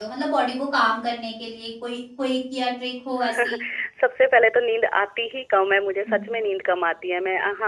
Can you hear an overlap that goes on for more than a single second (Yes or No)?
No